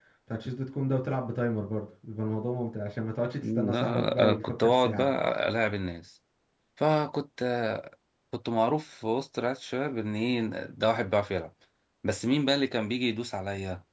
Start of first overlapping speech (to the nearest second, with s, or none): 3 s